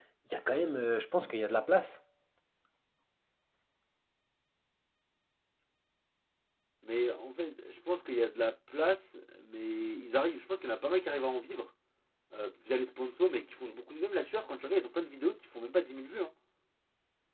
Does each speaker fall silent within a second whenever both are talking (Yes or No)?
Yes